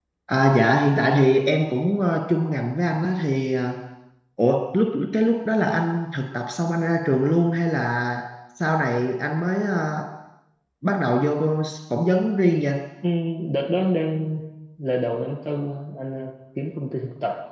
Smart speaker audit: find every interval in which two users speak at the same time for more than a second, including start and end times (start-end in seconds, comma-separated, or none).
none